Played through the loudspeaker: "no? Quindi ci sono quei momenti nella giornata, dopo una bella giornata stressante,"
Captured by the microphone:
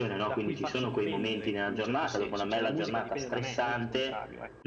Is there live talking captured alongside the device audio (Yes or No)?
Yes